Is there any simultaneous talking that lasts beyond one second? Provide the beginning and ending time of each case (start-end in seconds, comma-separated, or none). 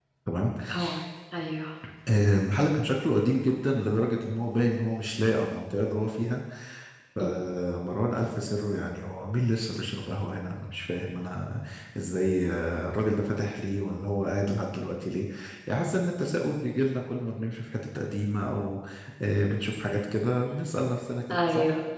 none